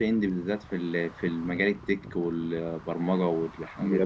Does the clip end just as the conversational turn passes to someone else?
Yes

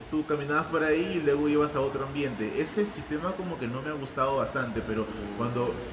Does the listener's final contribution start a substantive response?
No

